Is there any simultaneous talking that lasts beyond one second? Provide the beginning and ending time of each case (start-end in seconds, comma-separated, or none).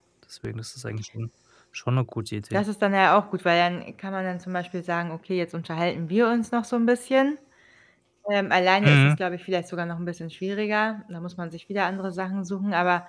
none